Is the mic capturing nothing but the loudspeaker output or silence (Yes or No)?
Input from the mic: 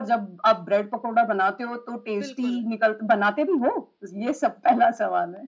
No